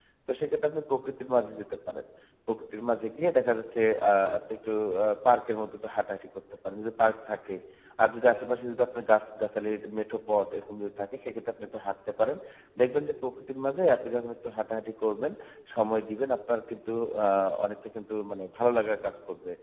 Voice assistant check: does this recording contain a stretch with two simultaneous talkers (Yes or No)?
No